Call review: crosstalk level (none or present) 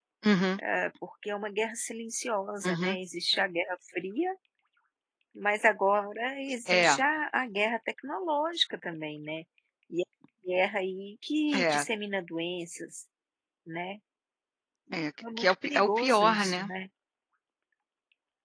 present